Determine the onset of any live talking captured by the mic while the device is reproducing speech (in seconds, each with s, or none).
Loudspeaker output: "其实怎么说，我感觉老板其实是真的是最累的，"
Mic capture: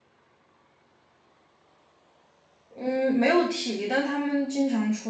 2.8 s